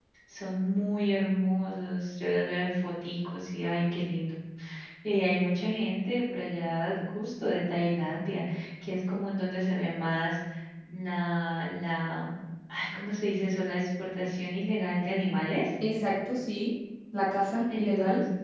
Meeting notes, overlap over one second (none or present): none